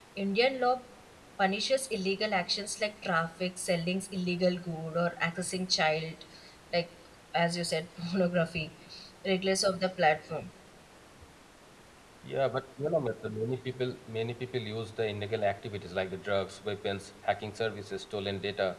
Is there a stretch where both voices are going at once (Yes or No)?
No